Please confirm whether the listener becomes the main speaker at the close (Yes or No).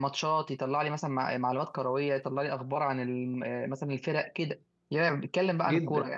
Yes